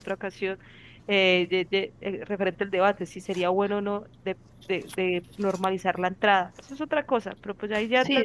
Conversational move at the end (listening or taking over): taking over